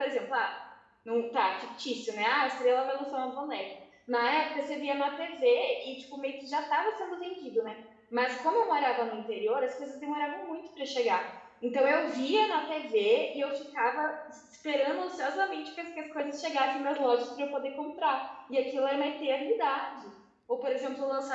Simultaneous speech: No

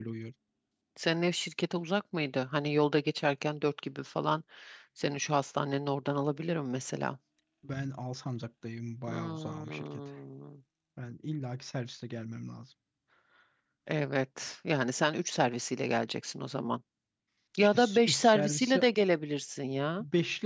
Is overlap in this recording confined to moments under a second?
No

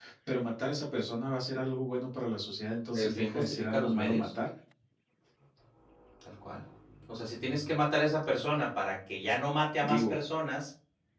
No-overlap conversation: No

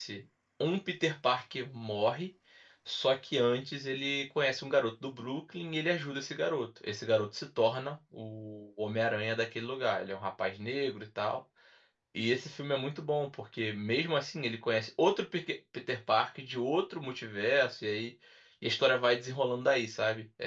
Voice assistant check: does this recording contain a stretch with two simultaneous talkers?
No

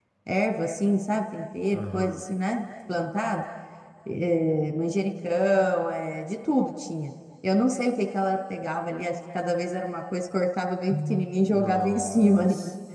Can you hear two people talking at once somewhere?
Yes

